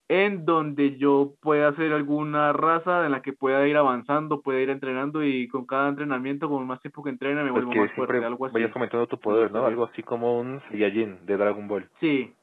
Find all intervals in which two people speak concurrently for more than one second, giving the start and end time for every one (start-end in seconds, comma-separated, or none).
7.5-8.7